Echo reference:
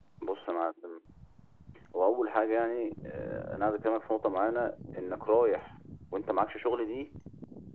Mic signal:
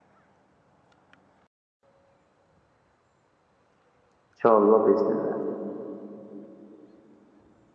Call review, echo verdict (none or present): none